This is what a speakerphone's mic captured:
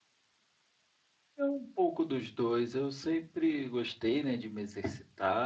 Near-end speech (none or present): present